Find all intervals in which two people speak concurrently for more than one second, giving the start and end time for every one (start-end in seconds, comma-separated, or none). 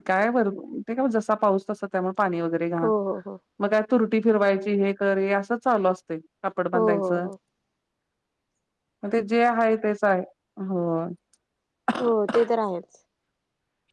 none